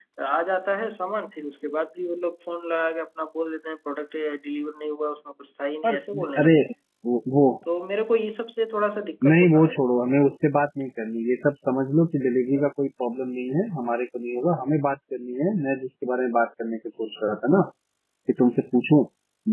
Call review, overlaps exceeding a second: none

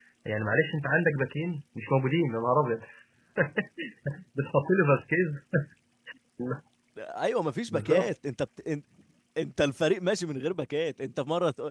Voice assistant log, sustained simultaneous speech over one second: none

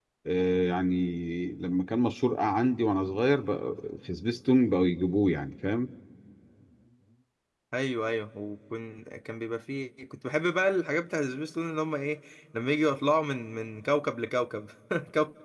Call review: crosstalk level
none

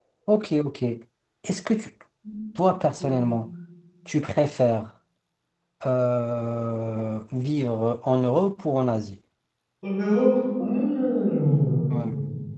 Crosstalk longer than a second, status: none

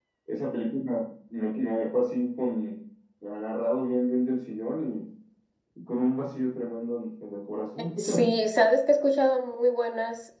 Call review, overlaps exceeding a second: none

